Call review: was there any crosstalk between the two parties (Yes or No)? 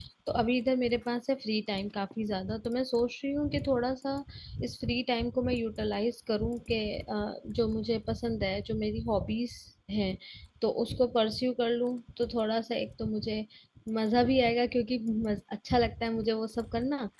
No